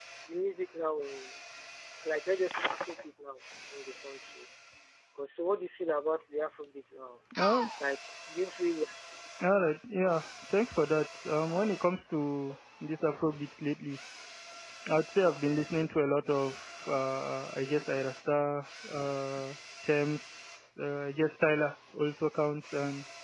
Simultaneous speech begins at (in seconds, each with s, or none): none